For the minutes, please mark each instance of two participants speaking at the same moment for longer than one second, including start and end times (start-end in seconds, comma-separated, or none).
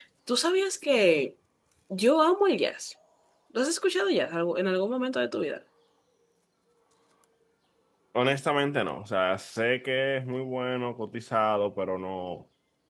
none